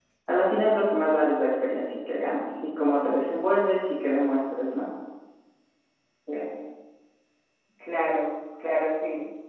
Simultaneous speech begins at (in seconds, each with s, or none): none